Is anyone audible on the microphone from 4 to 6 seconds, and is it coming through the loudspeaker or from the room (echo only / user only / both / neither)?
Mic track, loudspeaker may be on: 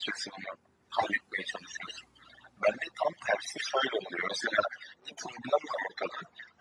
echo only